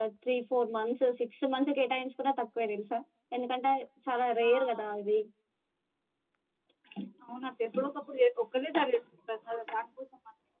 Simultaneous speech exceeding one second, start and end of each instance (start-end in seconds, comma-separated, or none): none